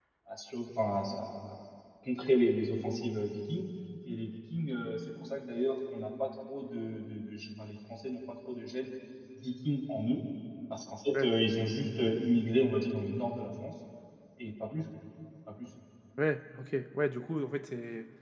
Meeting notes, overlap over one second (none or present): none